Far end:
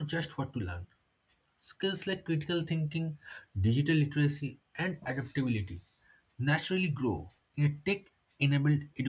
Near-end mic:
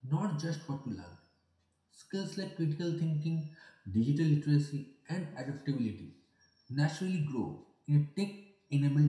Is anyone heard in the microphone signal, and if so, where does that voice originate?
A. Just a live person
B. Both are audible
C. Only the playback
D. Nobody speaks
C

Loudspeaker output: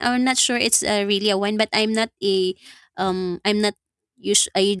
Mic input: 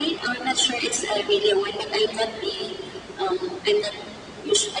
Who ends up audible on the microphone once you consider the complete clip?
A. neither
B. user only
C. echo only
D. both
C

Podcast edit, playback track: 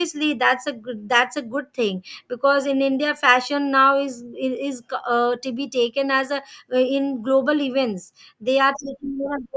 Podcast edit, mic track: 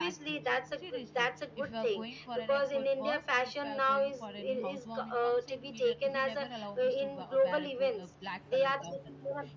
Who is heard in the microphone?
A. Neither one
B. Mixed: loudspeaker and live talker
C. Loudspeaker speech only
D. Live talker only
B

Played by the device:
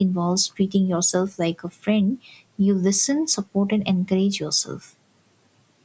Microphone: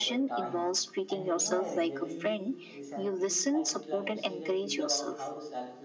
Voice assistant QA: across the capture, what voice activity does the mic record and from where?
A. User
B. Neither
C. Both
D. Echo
C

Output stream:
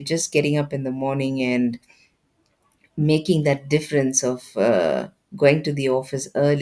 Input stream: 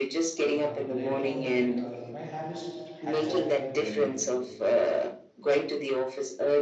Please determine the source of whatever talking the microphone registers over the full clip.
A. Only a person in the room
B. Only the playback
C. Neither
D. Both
D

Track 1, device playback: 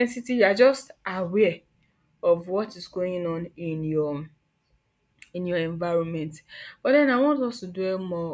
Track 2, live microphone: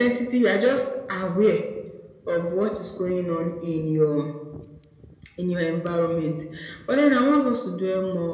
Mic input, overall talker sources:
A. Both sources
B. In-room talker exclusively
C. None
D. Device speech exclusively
D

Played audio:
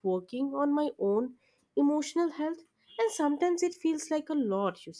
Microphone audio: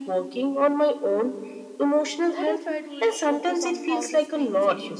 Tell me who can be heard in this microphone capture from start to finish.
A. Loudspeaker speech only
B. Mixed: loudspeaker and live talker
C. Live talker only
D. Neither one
B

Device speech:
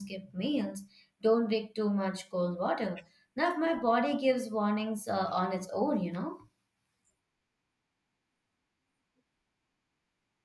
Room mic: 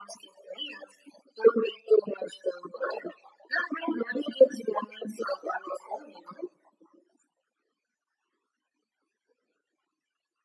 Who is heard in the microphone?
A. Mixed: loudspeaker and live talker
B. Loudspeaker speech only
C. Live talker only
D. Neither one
B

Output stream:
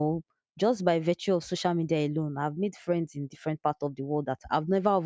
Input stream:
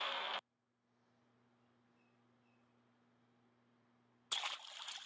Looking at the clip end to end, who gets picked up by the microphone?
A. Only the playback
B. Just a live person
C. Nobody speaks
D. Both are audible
C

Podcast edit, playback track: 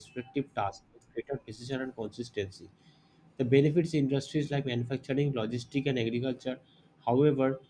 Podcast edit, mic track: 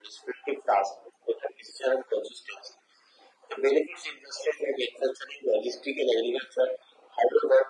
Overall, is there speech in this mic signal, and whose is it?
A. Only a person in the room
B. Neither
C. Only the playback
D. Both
C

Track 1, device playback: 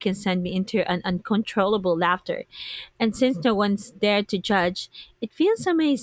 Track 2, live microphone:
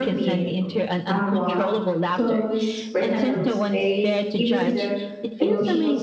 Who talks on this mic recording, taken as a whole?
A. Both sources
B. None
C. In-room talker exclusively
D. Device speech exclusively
A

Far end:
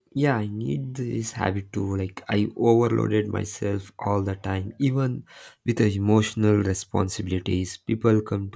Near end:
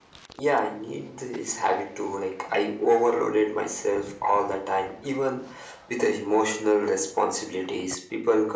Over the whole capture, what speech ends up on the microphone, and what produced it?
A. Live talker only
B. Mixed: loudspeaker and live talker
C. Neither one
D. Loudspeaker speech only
D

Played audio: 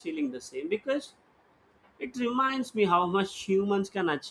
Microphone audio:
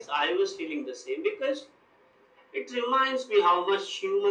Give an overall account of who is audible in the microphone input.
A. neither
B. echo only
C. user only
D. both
B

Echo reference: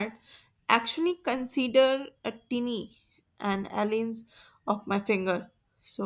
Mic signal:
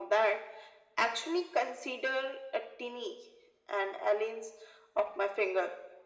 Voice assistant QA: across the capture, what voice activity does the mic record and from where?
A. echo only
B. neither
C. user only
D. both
A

